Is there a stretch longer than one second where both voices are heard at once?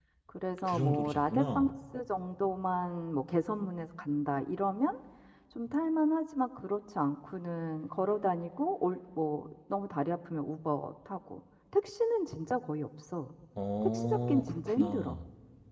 Yes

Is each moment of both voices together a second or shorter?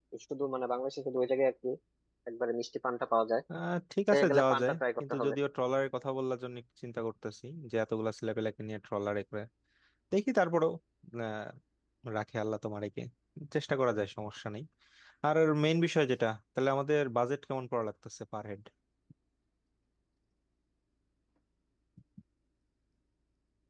No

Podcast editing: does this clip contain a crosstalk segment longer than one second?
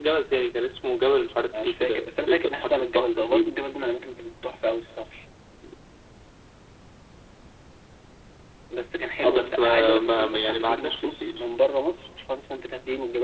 Yes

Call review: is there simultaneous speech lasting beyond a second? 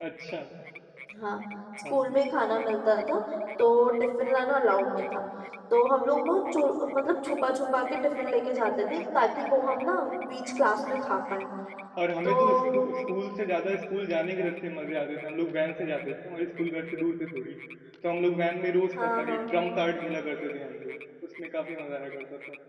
No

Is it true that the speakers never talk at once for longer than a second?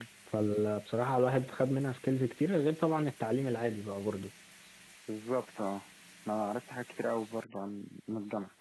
Yes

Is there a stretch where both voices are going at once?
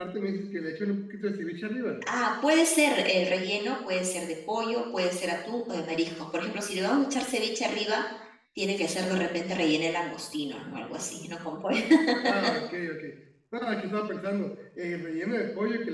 No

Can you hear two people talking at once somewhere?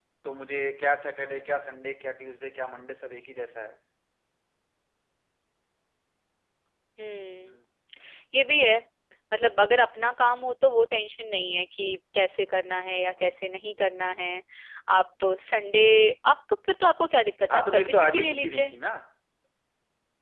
Yes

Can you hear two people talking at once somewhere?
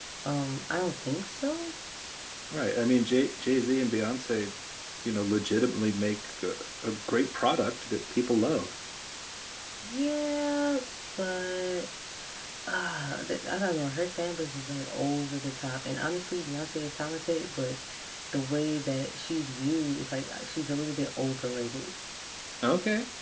No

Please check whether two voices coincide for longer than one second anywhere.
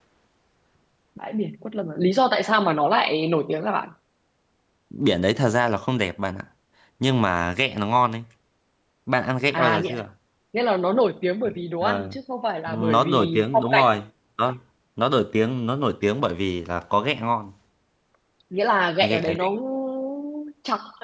Yes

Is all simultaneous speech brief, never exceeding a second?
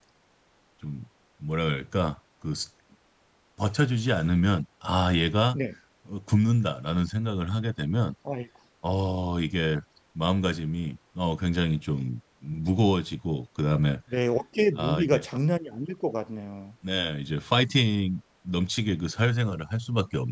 Yes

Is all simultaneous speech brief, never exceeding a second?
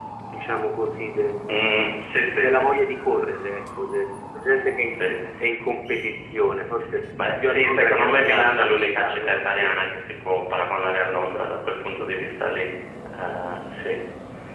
No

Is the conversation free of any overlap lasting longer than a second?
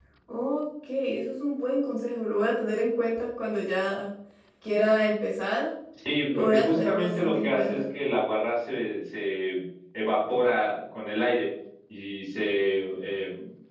No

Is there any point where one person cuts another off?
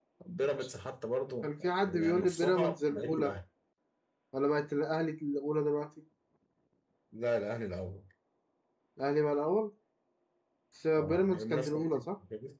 Yes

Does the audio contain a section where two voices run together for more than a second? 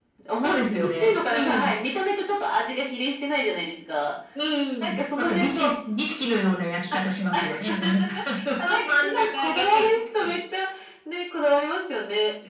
Yes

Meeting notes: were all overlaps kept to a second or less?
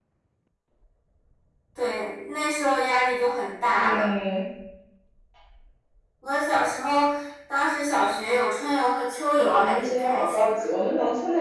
No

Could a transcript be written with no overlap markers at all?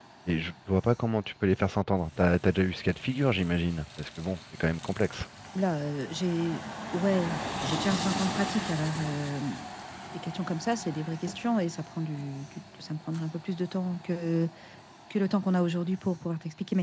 Yes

